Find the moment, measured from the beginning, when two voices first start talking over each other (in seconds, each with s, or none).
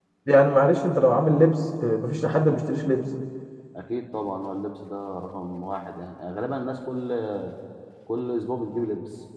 none